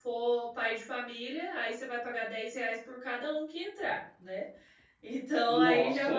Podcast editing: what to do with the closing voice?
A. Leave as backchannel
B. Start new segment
A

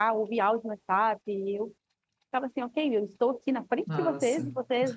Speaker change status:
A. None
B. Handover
A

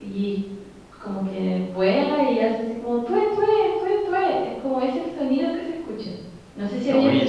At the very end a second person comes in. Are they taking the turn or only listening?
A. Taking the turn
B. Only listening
B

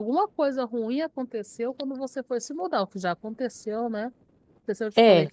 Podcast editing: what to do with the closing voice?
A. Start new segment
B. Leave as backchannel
B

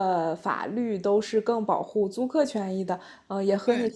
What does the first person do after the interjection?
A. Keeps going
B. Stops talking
A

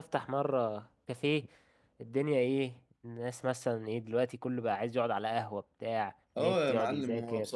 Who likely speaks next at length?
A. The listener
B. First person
A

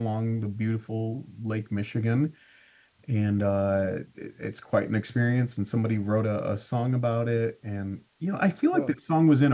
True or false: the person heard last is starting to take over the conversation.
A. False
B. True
A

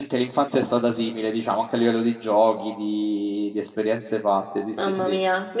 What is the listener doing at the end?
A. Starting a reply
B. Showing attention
A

